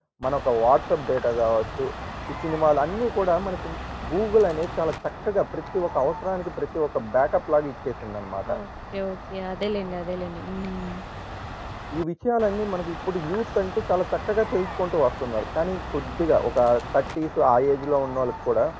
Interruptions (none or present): none